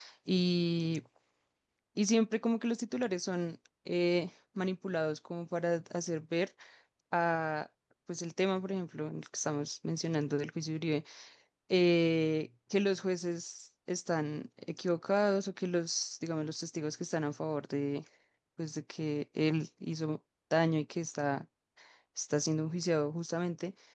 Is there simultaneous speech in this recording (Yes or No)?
No